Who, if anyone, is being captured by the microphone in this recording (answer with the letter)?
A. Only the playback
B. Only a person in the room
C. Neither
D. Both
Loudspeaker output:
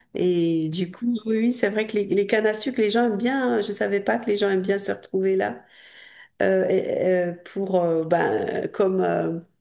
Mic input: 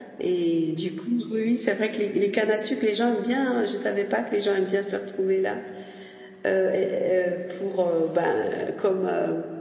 A